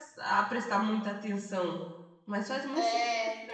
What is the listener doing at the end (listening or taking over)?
taking over